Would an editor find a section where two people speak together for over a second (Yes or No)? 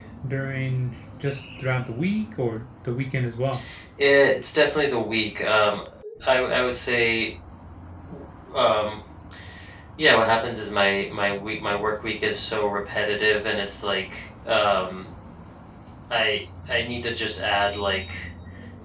No